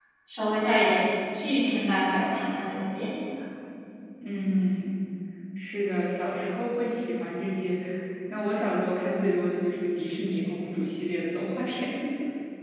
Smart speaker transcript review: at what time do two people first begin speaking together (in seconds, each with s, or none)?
none